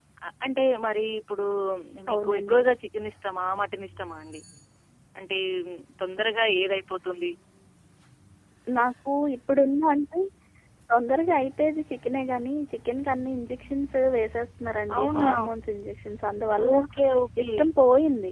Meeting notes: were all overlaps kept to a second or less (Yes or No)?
Yes